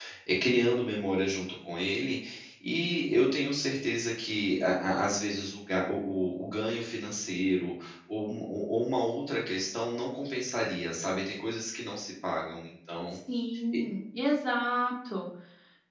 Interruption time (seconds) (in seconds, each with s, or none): none